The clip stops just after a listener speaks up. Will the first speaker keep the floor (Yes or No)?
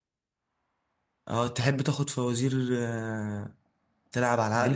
No